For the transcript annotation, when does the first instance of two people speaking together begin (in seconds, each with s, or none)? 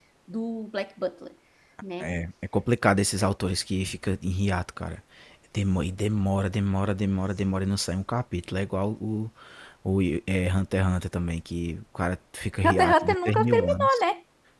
12.6 s